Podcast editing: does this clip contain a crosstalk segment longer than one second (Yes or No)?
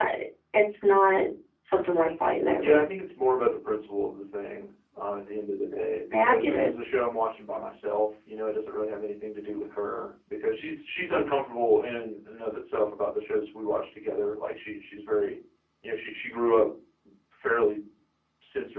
No